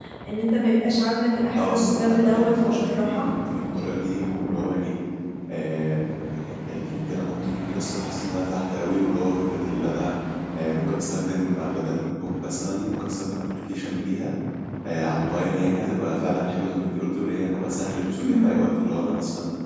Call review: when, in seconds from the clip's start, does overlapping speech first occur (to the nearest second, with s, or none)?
2 s